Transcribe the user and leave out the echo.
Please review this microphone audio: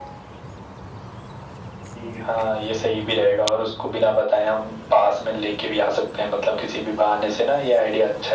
none

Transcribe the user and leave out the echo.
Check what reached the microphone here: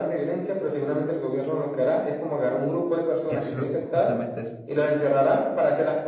Eso justamente es,

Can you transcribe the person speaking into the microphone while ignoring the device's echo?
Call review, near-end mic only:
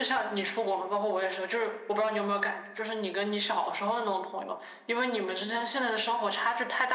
none

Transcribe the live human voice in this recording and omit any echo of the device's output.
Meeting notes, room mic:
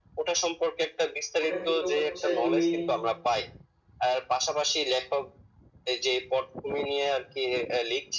ওটা কিন্তু হচ্ছে তুমি

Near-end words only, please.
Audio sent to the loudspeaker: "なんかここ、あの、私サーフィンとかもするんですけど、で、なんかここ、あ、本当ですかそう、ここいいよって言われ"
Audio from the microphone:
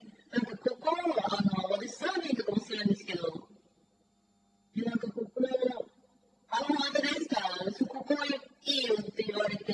none

